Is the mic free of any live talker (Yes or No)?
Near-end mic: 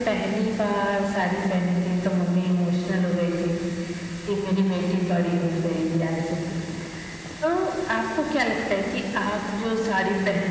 Yes